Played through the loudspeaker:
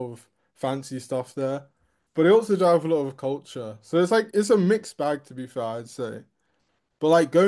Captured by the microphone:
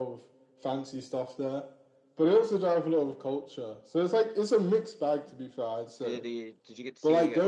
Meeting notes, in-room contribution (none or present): present